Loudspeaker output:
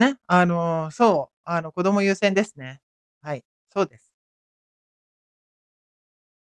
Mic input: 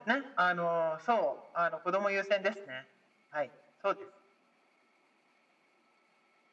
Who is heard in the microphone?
echo only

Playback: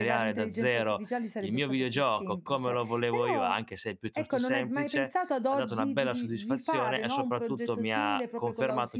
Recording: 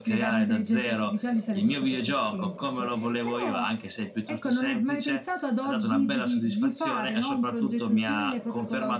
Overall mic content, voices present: echo only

